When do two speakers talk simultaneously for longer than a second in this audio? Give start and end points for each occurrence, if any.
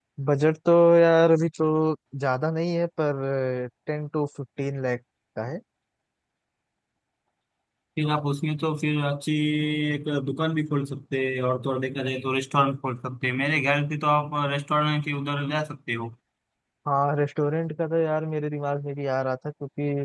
none

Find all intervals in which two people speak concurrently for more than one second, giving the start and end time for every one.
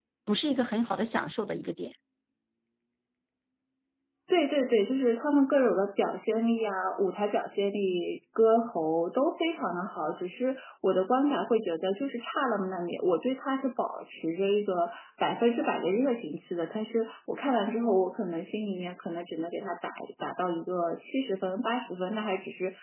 none

